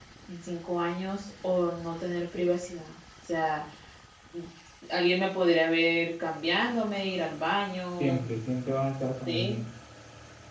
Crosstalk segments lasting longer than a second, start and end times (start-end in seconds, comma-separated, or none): none